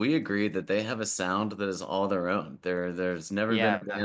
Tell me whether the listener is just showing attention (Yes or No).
Yes